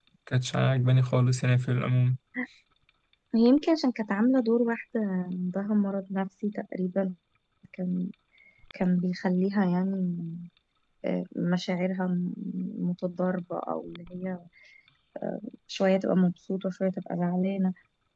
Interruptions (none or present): none